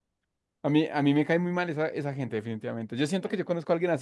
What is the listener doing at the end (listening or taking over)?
listening